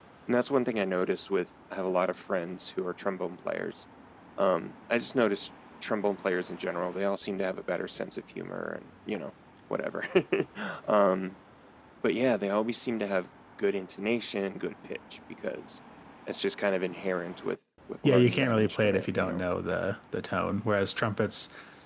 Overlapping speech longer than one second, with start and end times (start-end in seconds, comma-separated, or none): 18.0-19.4